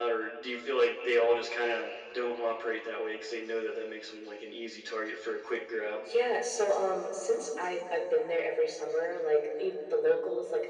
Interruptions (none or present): none